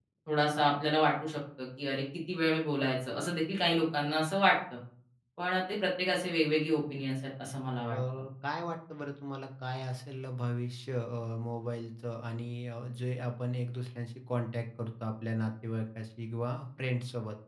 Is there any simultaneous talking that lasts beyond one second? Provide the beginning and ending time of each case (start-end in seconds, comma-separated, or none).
none